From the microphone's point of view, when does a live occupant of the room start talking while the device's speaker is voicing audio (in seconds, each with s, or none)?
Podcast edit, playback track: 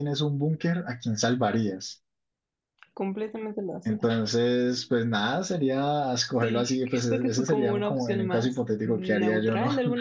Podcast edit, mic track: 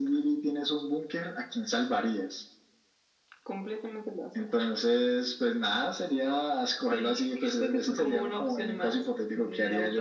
none